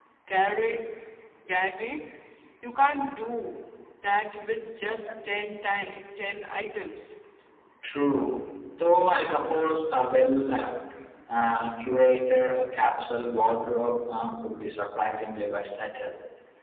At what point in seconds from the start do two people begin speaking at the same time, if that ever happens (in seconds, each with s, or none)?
none